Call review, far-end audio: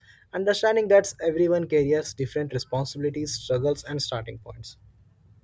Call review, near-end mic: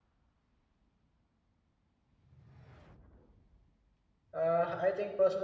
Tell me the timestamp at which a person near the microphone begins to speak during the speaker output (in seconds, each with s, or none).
4.3 s